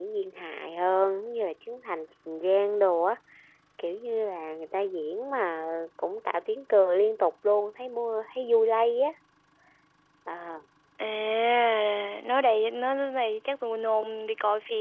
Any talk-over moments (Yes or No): No